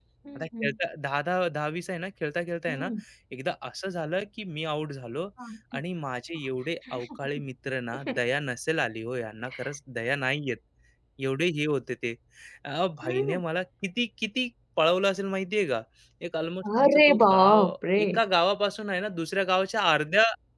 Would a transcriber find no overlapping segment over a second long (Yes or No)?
No